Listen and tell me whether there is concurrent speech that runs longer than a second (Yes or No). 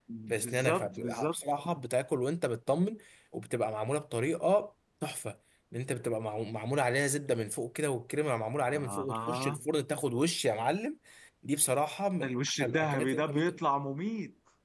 Yes